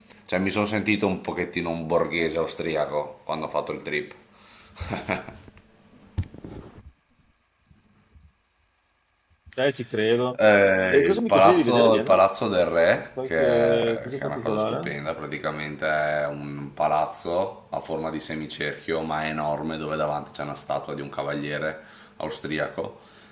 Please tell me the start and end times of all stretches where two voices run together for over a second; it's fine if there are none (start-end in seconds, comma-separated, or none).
10.9-12.2, 13.2-14.9